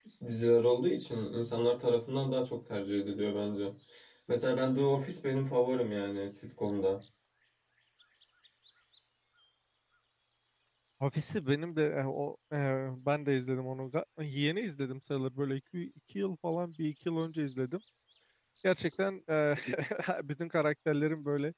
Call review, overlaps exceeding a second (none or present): none